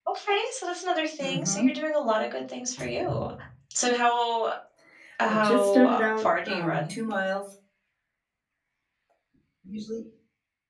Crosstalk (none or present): present